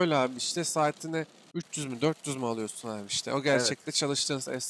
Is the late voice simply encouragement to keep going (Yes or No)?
Yes